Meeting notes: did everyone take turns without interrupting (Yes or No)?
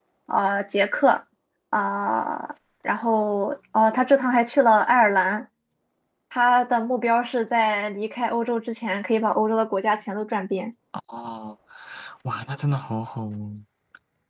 Yes